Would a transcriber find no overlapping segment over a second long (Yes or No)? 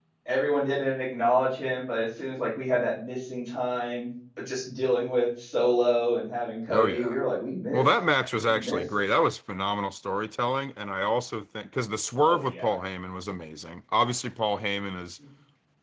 Yes